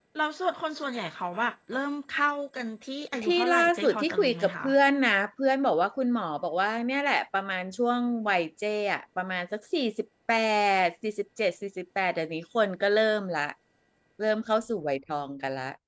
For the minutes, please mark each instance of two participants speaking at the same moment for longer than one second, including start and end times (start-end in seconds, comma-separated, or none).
3.2-4.7